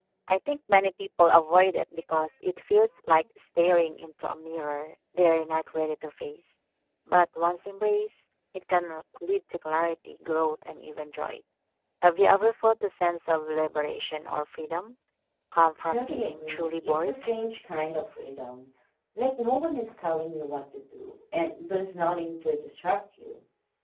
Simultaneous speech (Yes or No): Yes